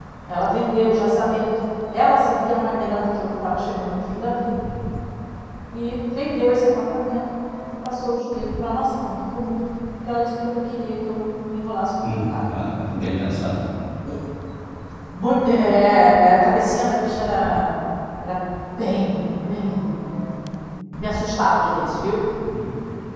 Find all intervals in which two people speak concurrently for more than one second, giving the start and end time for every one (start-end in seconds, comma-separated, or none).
none